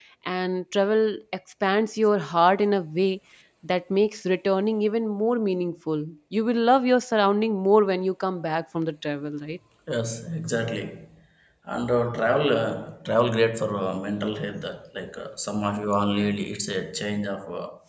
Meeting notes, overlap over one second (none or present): none